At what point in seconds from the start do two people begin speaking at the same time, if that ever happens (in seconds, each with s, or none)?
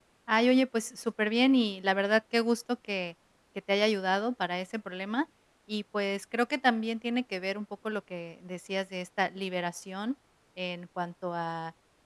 none